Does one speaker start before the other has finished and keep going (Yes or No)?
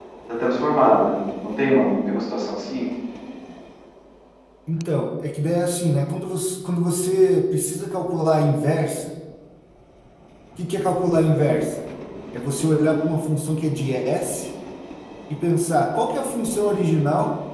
No